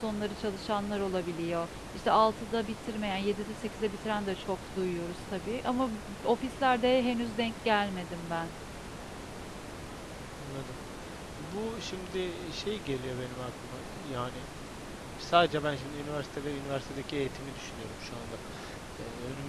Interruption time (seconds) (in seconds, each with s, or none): none